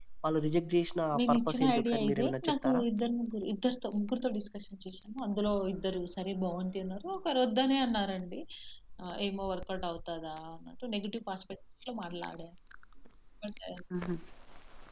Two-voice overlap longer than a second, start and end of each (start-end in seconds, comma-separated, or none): 1.2-2.8